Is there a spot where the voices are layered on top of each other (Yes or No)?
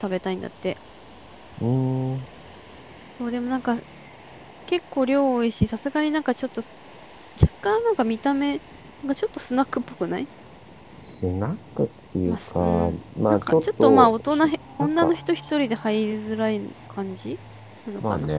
Yes